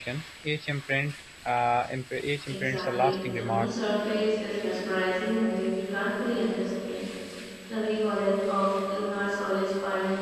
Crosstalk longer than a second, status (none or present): present